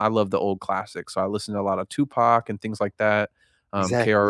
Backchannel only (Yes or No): Yes